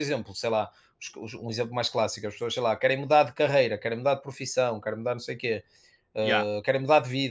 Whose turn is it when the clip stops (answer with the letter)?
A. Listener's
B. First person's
B